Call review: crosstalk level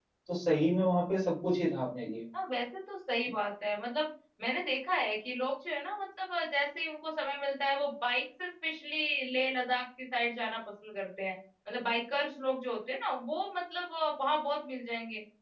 none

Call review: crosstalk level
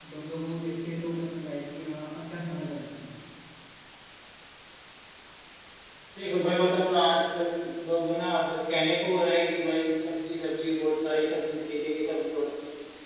none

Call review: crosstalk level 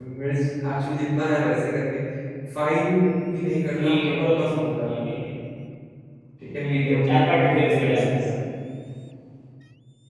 present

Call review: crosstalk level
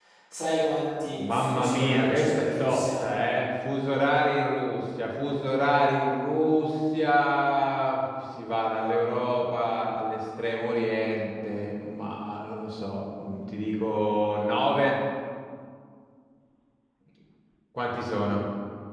present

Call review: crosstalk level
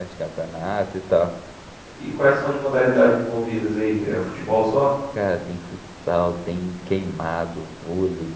none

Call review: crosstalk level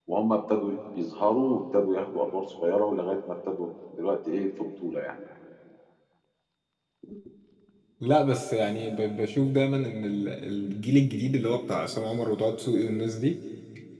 none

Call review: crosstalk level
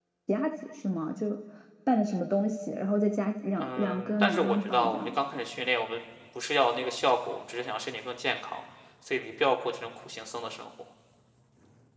present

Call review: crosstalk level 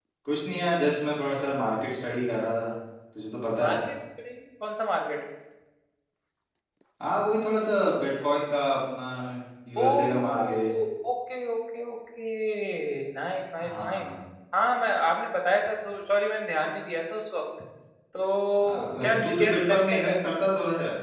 present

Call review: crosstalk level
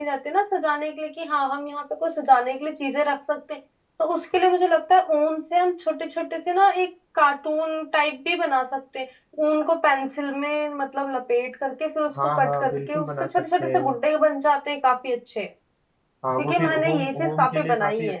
present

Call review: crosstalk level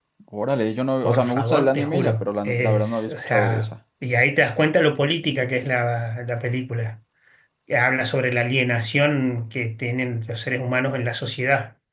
present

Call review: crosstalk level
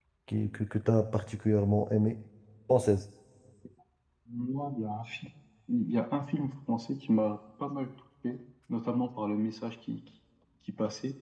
none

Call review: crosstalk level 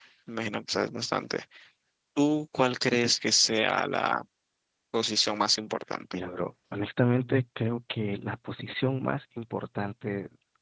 none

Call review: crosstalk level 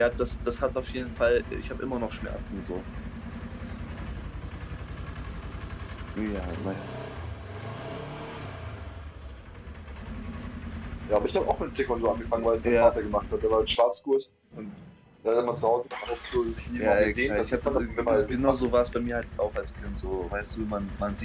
present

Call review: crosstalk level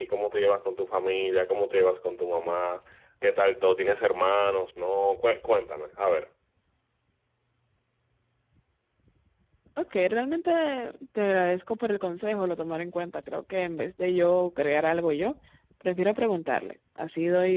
none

